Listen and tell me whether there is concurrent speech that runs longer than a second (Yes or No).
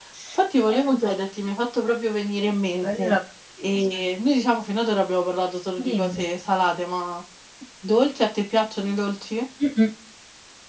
No